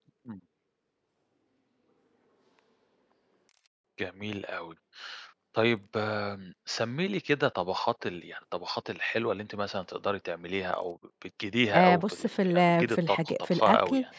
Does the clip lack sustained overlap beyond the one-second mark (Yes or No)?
No